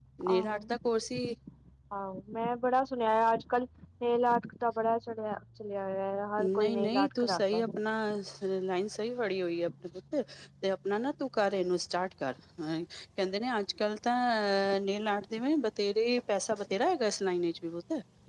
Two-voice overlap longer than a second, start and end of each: 6.4-7.8

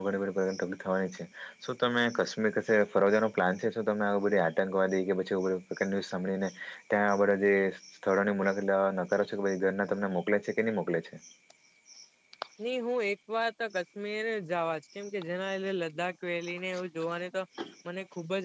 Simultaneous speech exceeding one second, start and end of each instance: none

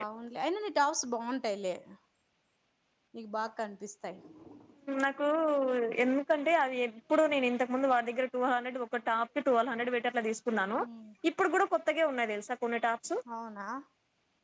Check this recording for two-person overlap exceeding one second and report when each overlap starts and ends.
none

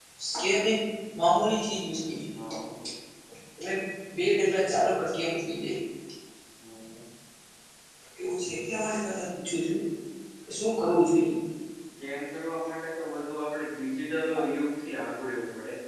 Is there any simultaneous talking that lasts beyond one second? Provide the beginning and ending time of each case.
none

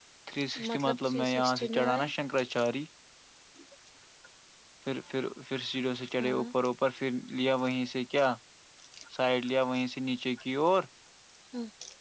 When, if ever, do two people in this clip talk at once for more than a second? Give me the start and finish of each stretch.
0.7-2.0

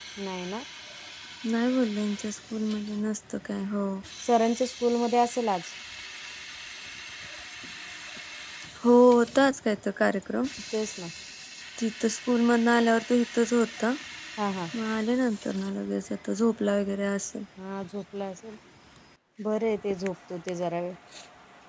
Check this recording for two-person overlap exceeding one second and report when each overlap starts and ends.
none

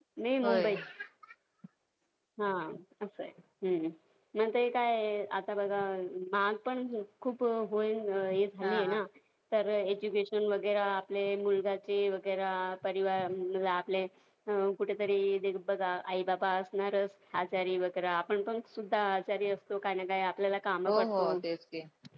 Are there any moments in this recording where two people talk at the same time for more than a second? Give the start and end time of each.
none

